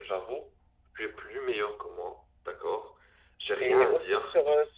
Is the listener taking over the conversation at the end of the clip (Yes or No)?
Yes